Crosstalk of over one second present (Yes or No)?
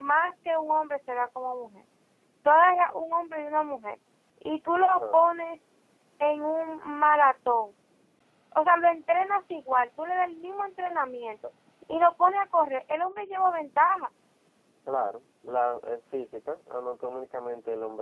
No